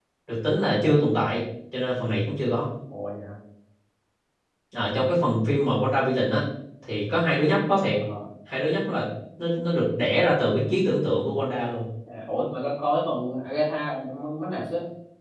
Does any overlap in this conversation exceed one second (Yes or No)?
No